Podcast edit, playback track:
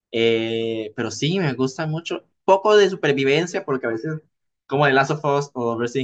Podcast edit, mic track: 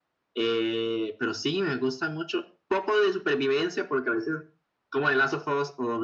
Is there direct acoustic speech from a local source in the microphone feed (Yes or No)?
No